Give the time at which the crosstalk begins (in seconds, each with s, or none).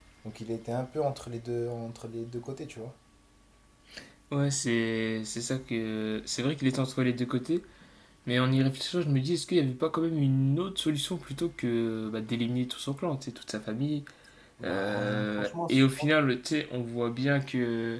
14.7 s